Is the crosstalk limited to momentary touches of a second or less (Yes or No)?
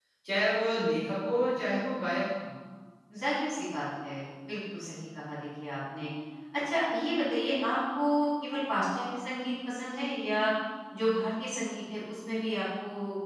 Yes